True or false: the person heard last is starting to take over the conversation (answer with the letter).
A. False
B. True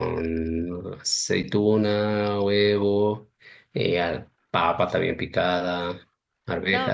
B